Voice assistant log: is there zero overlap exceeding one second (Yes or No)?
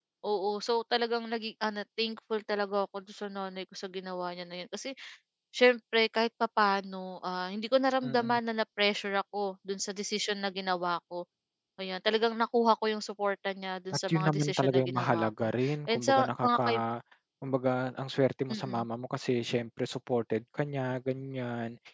No